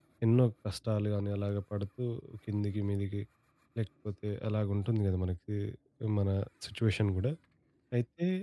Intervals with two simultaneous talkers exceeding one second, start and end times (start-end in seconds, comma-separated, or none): none